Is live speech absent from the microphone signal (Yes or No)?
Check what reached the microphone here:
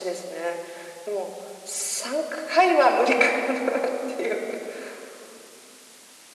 Yes